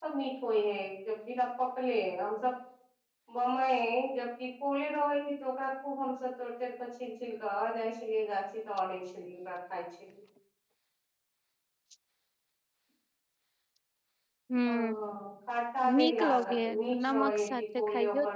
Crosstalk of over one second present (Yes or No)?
Yes